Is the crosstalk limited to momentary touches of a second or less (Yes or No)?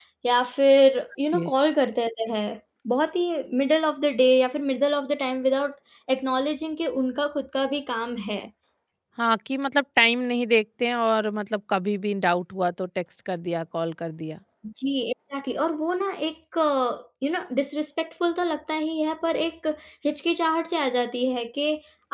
Yes